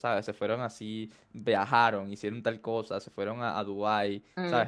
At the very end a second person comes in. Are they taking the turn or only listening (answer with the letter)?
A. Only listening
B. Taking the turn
A